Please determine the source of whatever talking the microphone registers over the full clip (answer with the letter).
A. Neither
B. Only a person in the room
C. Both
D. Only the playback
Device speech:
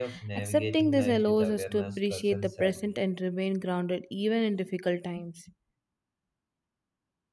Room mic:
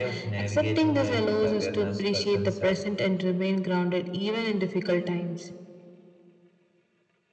D